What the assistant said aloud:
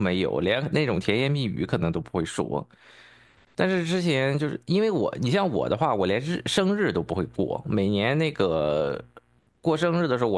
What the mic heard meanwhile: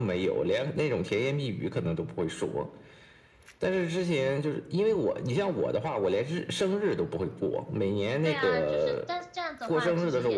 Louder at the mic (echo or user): echo